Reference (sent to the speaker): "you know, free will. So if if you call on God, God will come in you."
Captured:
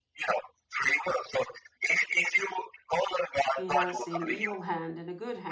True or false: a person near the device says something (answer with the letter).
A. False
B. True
B